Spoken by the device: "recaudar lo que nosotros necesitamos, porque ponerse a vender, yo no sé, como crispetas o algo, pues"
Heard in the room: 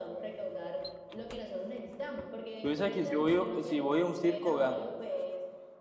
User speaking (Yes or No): Yes